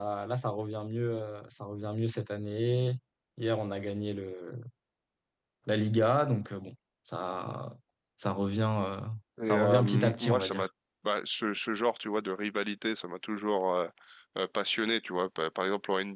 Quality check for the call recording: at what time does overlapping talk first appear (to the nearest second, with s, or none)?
9 s